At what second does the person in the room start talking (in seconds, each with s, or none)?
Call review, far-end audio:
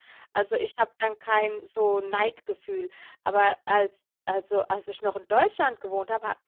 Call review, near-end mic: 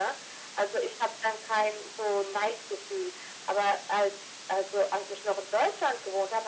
none